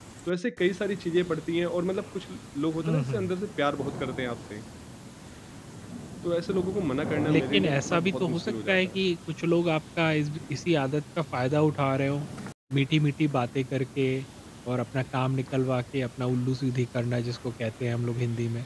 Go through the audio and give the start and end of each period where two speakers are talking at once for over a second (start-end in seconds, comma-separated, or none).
7.3-9.0